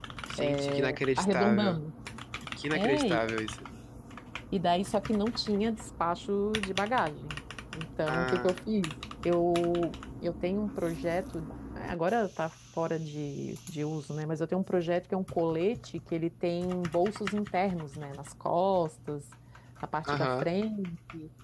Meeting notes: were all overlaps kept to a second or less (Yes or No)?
No